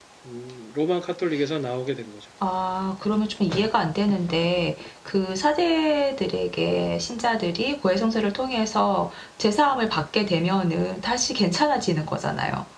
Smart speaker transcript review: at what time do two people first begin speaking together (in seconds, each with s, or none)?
none